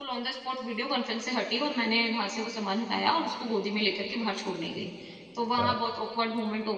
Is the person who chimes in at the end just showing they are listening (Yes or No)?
Yes